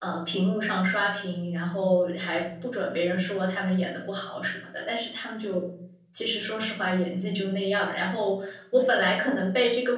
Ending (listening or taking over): listening